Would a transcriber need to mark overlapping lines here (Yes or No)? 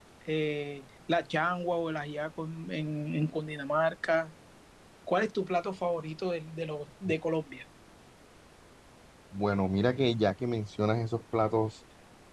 No